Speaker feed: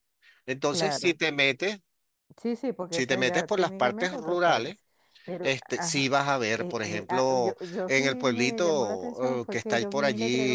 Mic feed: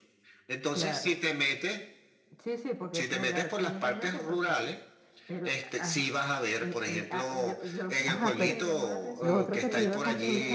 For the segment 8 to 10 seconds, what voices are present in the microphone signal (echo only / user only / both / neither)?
both